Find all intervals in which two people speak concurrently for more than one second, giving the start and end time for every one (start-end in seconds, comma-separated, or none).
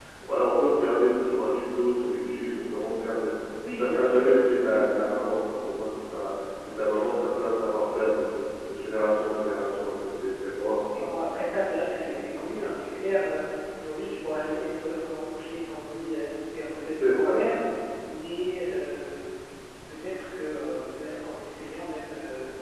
none